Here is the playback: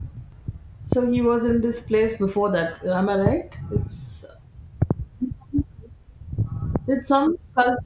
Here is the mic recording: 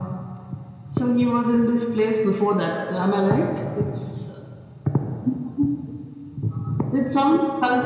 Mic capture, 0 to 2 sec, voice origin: echo only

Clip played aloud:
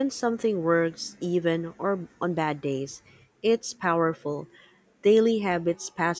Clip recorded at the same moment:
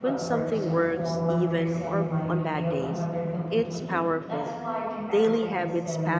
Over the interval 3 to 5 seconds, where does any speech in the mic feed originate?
both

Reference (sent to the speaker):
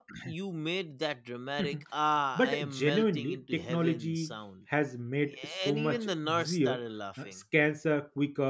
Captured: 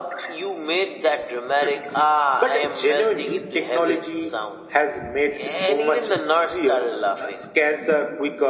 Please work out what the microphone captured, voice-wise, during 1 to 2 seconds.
echo only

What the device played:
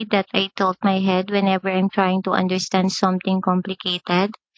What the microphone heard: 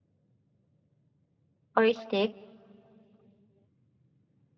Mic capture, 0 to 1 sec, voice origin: neither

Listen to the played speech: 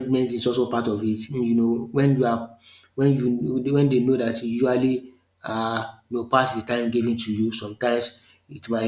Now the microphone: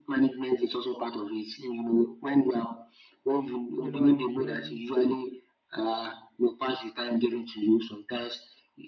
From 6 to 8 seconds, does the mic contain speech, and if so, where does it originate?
echo only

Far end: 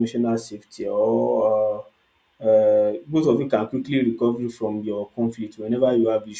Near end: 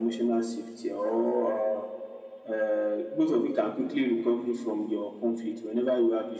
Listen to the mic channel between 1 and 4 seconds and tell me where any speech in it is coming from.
echo only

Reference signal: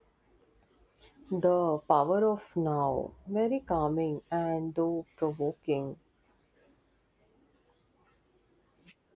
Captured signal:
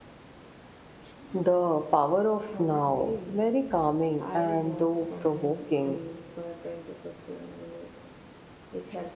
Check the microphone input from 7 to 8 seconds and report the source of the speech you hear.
user only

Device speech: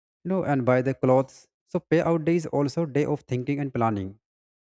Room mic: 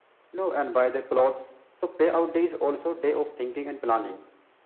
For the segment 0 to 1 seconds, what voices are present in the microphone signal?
echo only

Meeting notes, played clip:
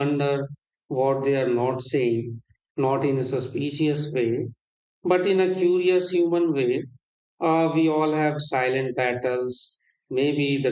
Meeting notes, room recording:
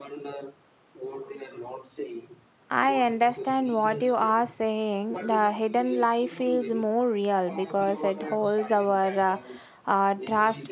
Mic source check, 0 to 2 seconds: echo only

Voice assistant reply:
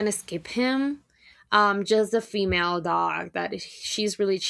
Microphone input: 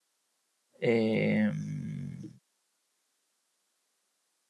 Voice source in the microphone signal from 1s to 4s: user only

